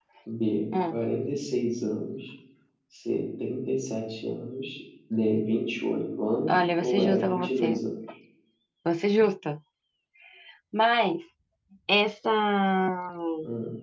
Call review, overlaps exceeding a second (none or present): present